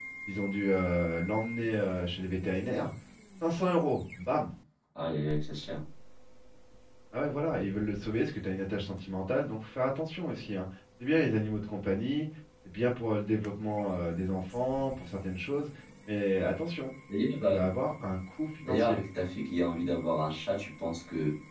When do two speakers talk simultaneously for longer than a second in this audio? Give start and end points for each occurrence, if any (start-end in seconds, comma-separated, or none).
none